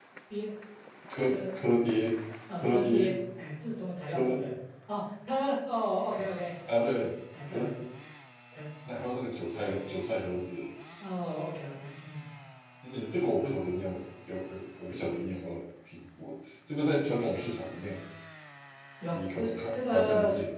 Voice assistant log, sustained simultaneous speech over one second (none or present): present